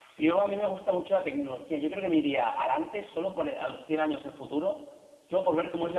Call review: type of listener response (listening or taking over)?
listening